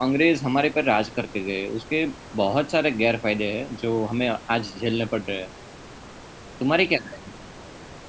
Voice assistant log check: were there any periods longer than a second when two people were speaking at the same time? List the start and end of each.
none

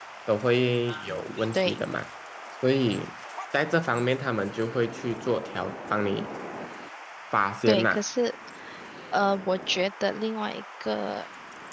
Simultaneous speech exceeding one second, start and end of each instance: none

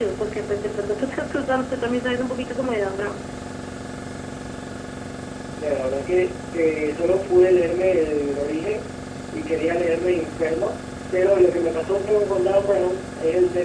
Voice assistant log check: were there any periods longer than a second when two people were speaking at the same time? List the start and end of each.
none

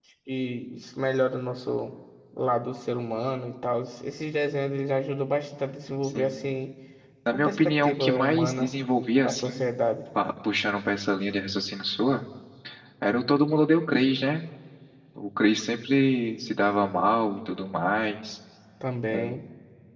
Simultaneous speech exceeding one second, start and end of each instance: 7.3-8.7

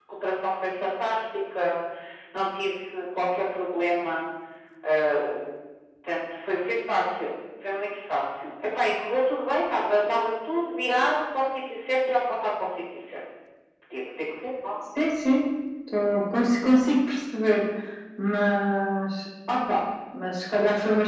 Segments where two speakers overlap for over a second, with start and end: none

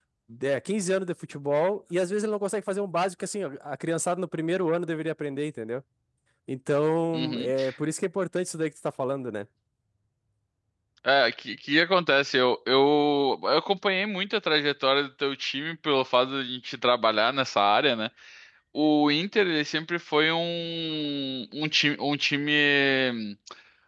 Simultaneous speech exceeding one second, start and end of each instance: none

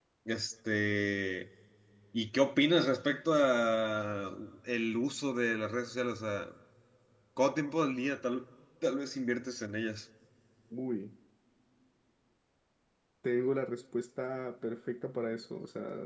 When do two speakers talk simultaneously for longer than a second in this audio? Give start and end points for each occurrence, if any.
none

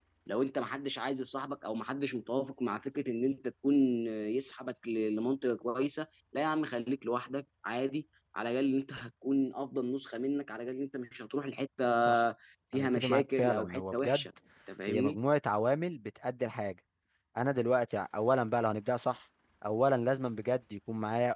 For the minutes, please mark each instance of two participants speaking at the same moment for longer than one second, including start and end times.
12.7-14.2

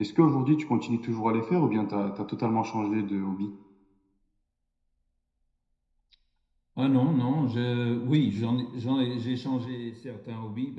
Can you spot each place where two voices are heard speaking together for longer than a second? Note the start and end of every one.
none

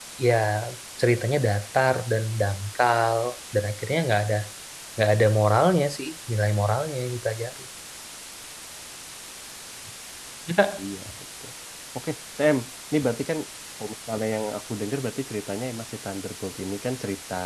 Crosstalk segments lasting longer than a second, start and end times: none

